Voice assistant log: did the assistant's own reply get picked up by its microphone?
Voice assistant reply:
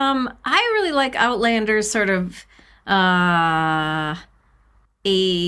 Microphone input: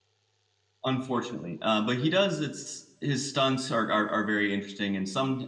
No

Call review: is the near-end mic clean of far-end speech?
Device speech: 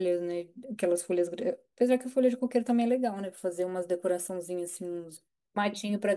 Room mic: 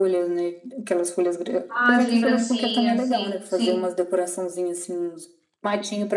No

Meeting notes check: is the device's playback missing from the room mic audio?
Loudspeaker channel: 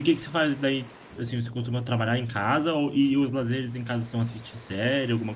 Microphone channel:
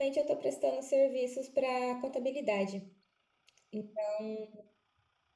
Yes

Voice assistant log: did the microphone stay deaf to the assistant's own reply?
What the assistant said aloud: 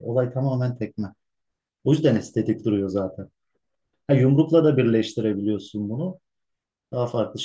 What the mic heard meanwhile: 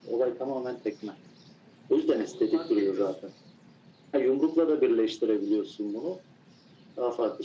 No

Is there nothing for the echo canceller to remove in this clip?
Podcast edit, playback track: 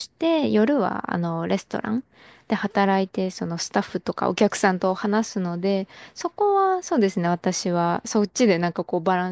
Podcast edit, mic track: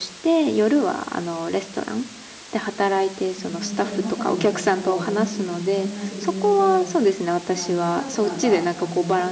No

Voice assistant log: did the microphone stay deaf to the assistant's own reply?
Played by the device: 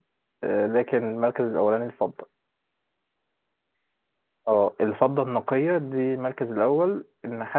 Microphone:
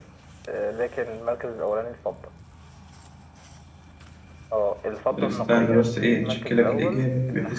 No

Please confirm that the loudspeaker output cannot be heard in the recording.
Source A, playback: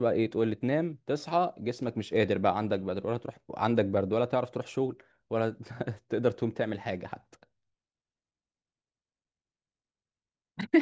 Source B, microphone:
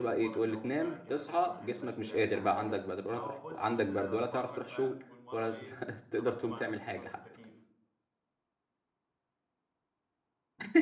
No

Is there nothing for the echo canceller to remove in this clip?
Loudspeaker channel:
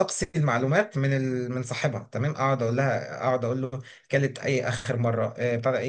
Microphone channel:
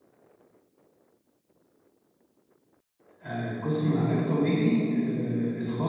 Yes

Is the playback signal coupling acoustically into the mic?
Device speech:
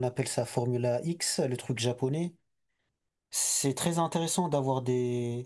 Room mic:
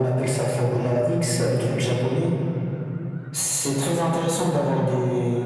Yes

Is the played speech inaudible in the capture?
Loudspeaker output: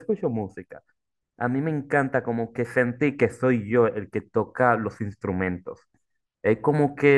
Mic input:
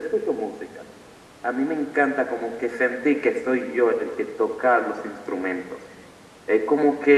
No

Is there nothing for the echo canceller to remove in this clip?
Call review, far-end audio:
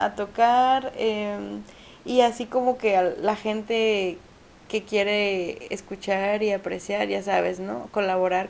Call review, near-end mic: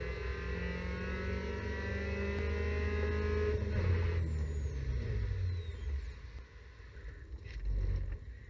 Yes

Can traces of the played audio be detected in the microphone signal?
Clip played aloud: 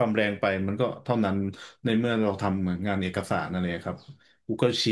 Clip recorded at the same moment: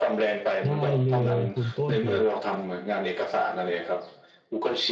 Yes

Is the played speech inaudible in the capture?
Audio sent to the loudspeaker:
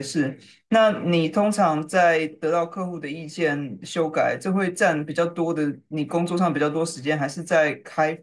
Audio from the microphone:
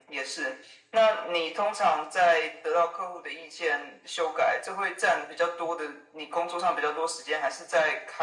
No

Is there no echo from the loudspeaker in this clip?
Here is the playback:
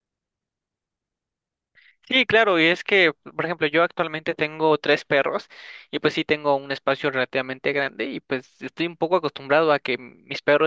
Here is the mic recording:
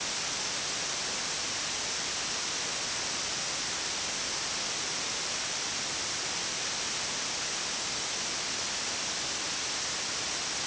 Yes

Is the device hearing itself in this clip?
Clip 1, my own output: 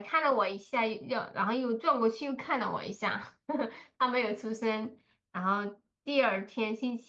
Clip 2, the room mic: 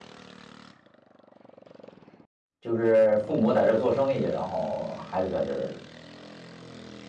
No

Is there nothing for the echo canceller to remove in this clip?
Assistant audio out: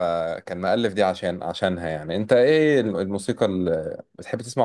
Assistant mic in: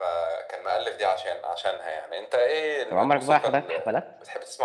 No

